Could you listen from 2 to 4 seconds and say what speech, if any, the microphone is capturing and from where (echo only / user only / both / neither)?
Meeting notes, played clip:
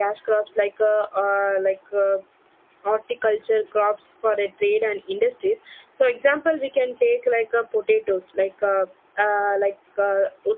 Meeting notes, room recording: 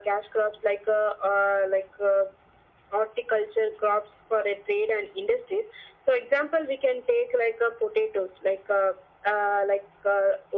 echo only